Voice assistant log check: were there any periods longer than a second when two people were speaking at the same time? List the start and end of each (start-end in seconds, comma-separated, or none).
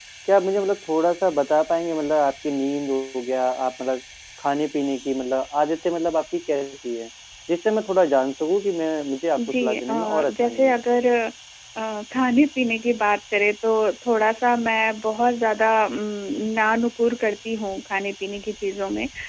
9.4-10.7